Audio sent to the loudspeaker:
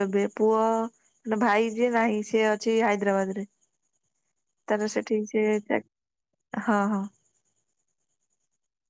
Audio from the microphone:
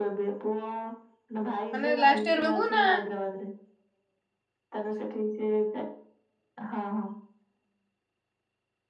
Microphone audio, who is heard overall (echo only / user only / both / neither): both